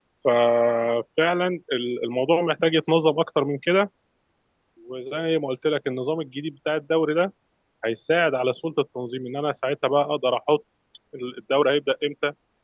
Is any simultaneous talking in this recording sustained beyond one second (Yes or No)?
No